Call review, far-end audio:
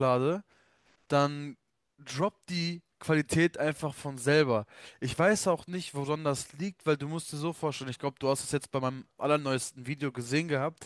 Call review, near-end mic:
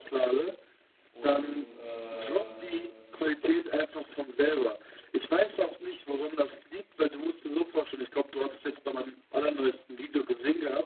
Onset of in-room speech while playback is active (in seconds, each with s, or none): 1.1 s